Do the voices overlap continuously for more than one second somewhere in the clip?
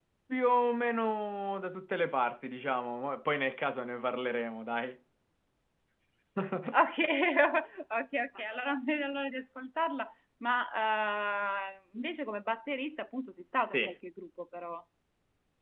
No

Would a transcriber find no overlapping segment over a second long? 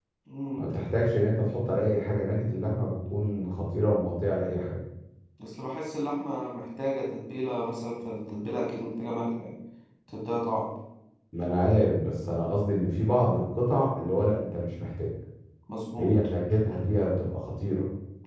Yes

